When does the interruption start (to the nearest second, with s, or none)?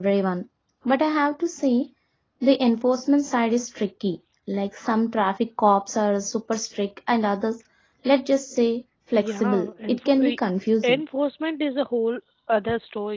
9 s